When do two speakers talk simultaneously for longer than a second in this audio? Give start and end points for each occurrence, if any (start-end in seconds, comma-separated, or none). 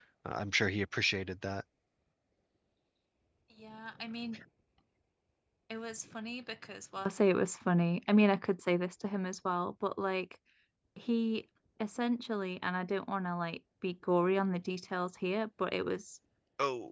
none